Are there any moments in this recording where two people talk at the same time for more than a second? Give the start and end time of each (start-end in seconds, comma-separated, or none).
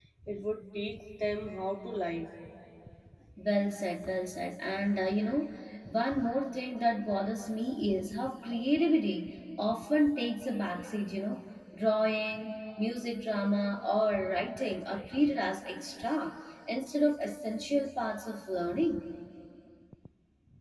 none